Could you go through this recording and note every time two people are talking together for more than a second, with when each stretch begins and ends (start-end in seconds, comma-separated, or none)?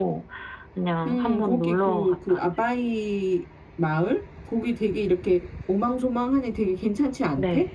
1.1-2.4